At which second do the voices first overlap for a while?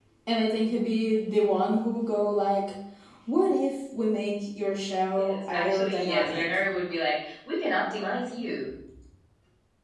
5.2 s

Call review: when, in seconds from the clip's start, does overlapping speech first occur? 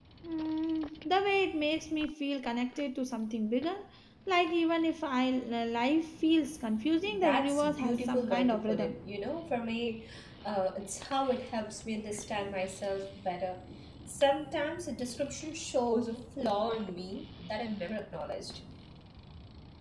7.0 s

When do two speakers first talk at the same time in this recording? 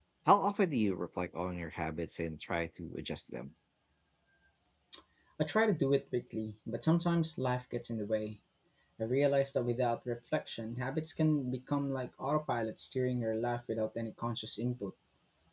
none

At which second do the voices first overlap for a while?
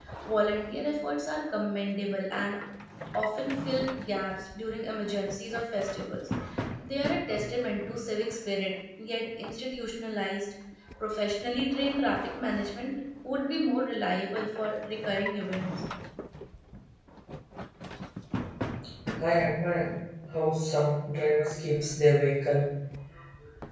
none

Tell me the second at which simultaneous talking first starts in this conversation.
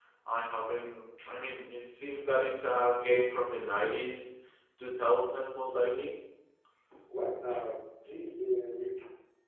none

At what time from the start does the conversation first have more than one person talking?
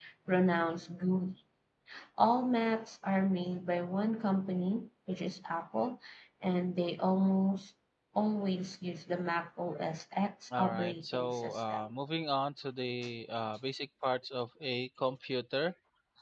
10.5 s

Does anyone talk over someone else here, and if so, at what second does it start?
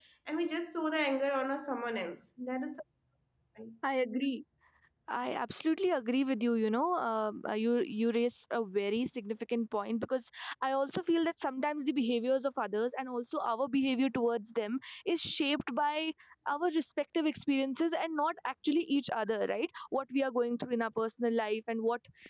none

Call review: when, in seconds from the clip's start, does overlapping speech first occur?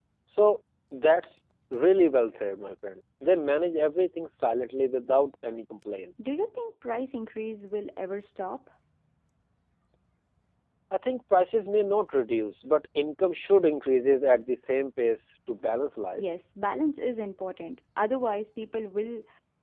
none

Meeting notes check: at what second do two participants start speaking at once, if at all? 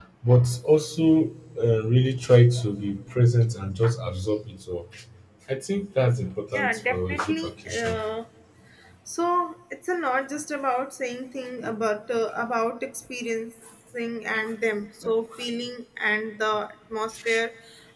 6.5 s

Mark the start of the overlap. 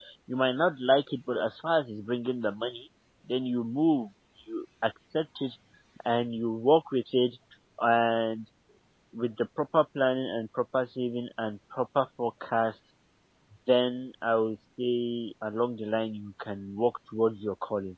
none

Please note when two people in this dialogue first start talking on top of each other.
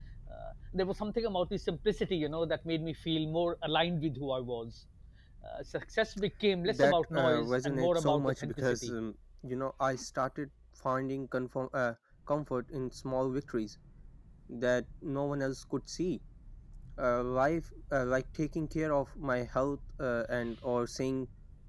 6.7 s

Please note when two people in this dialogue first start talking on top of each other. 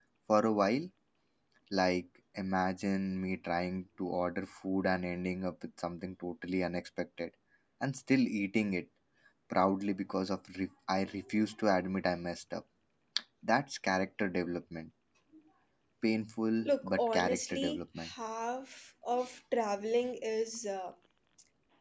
16.6 s

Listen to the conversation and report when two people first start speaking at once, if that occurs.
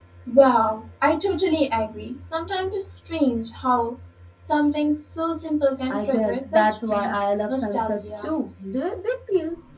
5.9 s

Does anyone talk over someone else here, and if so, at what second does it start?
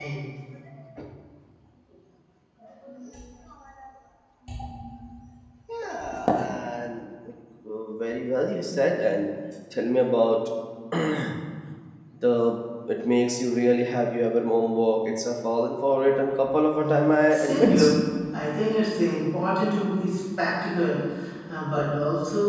16.7 s

